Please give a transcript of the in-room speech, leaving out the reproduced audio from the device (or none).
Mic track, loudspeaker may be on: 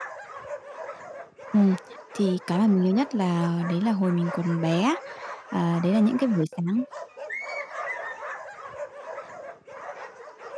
Ừm, thì cái mà mình nhớ nhất là đấy là hồi mình còn bé á, à, đấy là những cái buổi sáng